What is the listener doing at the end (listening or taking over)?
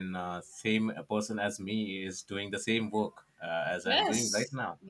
taking over